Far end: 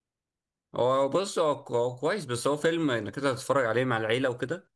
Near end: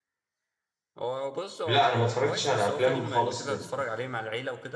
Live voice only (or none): لا انا ما اتفرجتش على افلام خالص لل...